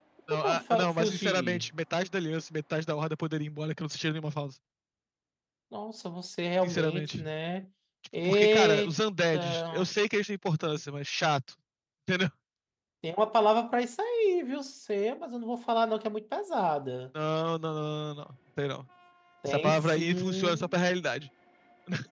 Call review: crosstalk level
present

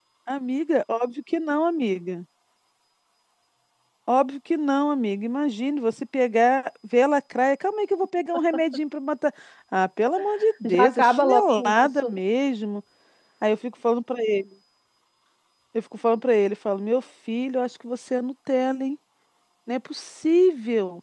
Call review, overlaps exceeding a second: present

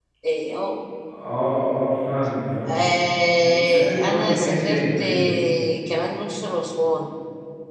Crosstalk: present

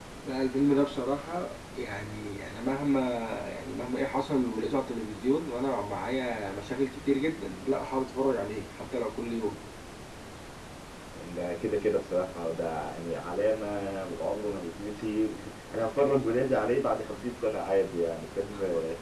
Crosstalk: none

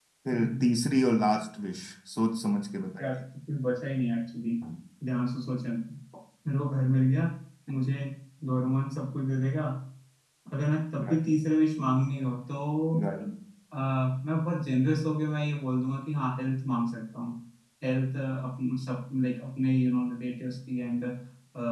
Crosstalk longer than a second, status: none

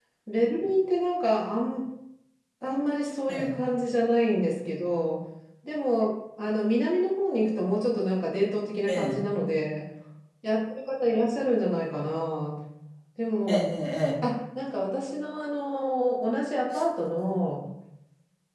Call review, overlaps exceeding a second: none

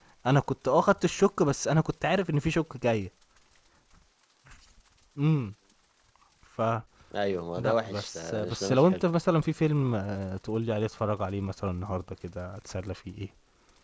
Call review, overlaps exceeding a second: present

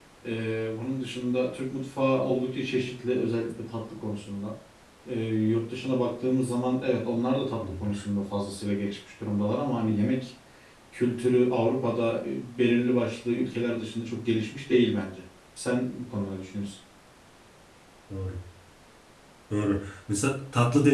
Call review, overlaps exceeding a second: none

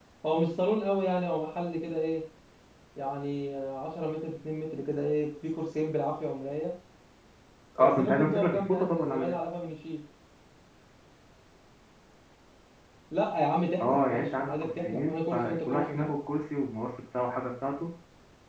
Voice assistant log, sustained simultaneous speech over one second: present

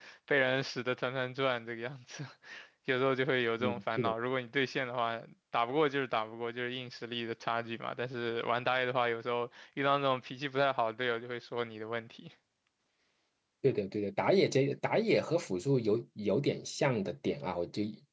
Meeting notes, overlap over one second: none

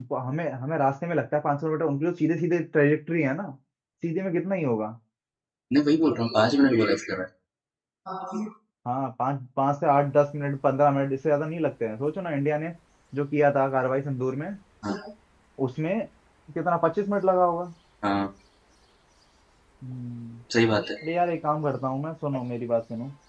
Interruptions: none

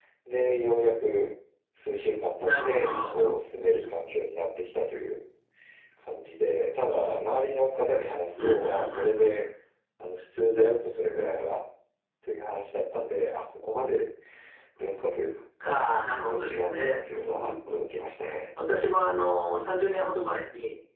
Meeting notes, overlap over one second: present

